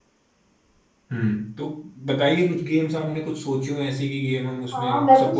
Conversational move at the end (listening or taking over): taking over